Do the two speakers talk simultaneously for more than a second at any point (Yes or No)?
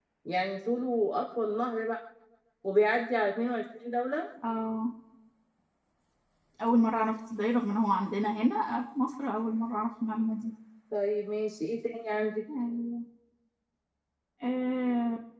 No